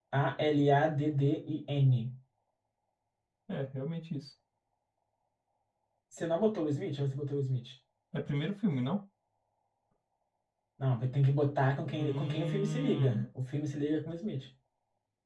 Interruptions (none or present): present